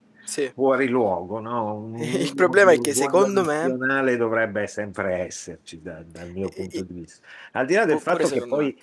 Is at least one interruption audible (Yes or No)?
Yes